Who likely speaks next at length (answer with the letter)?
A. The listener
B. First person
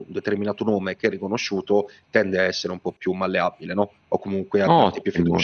A